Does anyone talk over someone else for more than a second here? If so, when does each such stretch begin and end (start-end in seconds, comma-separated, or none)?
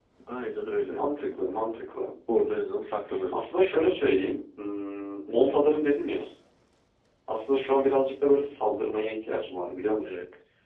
none